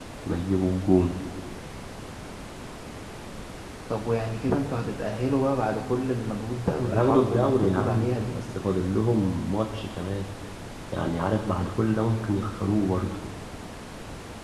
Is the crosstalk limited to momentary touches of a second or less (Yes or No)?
No